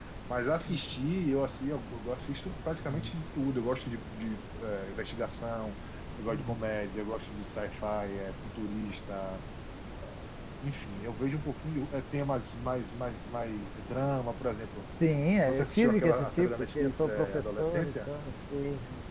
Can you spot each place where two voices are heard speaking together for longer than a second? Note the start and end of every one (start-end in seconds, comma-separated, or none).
15.4-18.1